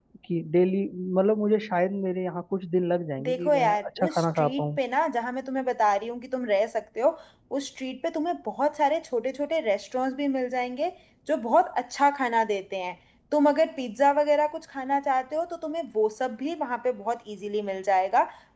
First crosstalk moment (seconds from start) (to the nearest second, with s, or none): 3 s